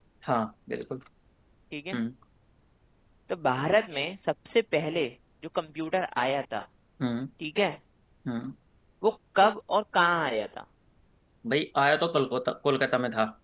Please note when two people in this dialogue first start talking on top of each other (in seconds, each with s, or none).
none